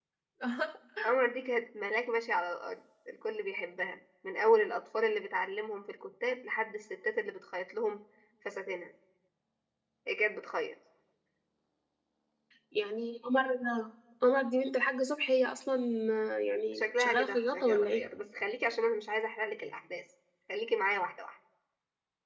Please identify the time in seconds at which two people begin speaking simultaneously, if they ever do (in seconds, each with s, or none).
16.7 s